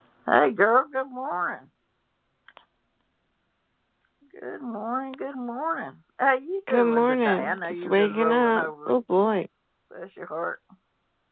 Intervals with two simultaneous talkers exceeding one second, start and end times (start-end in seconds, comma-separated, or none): 6.7-8.9